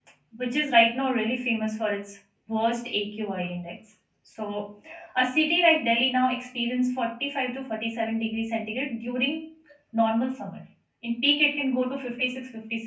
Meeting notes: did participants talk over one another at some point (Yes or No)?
No